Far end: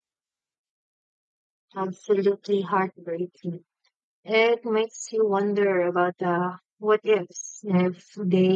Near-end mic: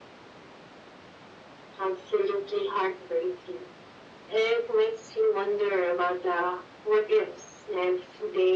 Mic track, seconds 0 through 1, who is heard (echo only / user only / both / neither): neither